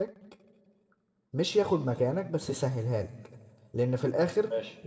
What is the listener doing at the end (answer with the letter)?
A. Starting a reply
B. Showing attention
B